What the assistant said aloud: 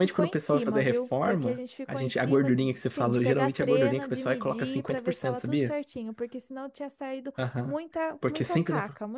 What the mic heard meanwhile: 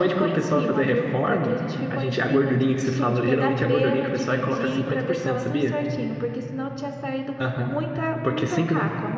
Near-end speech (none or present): none